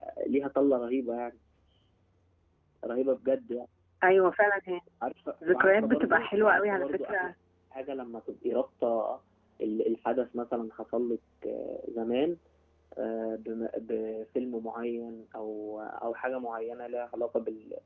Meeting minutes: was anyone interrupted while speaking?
Yes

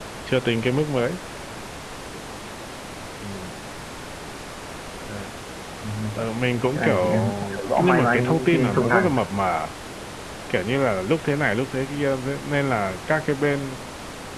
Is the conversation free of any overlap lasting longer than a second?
No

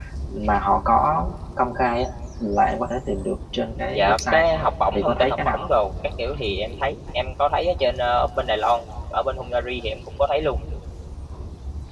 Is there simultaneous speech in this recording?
Yes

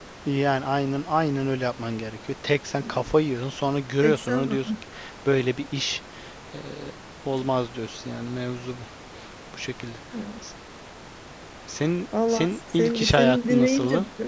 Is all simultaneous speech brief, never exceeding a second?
No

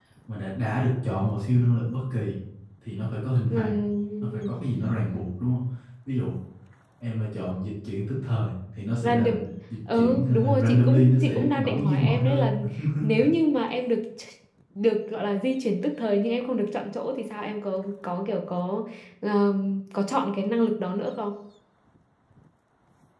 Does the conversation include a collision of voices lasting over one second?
Yes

